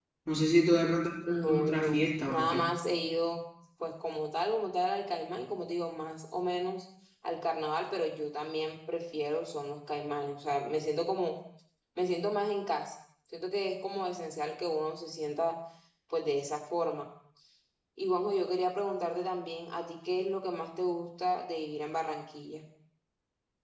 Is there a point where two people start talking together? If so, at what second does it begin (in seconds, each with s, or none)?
1.3 s